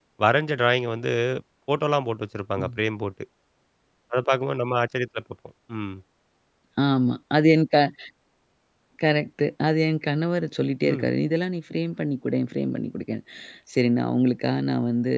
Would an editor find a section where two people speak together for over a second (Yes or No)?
No